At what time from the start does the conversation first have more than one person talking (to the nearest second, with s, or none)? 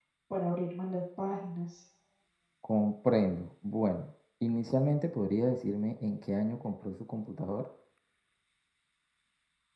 none